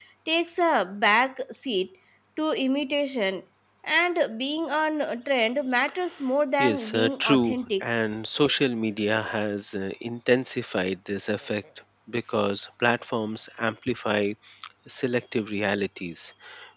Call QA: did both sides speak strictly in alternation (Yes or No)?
No